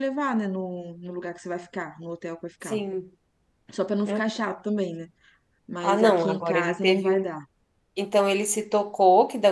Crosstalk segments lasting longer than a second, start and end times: 5.8-7.3

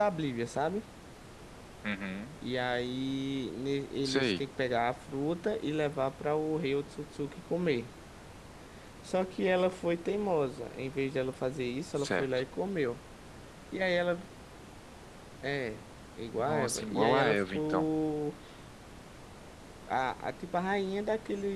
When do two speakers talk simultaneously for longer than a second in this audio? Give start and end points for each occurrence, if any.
16.4-17.9

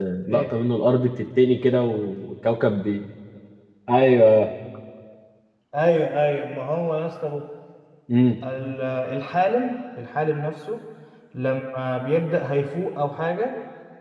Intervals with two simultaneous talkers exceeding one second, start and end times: none

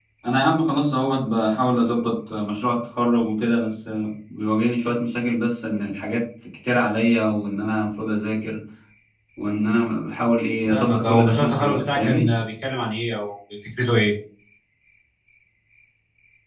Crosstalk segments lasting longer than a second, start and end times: 10.7-12.3

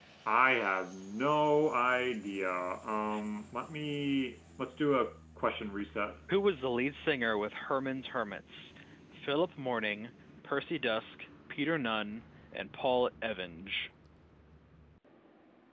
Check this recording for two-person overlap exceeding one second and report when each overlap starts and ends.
none

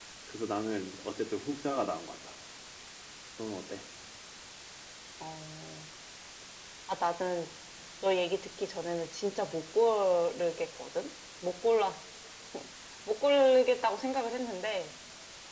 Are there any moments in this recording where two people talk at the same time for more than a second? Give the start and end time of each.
none

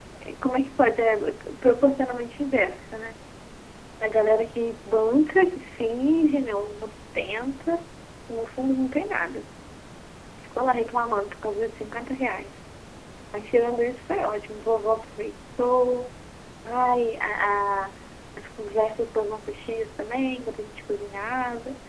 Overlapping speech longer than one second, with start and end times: none

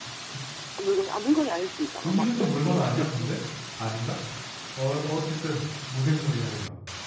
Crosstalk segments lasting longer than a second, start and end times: 2.0-3.4

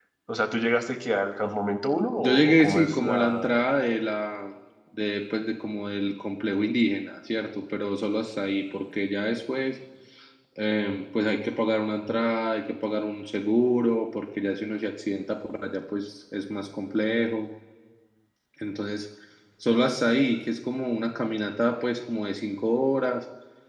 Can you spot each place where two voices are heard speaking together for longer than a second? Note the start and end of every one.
2.2-3.5

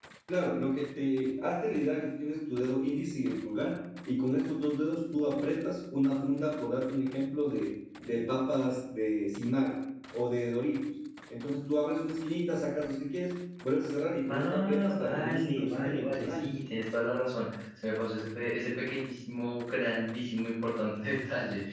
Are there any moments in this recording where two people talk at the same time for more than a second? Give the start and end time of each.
14.3-16.5

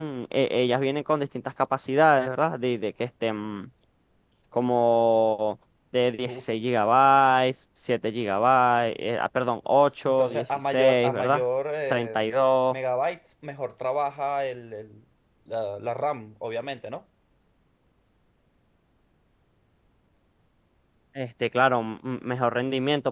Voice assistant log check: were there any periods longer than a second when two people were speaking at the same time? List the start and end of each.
10.1-11.4

